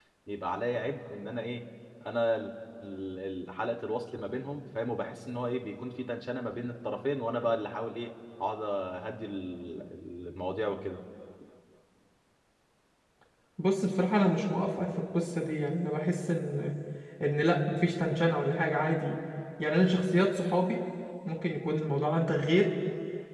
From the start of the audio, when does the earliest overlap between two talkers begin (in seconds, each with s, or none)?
none